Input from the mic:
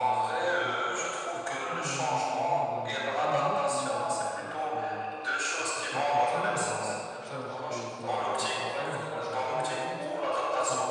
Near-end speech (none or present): present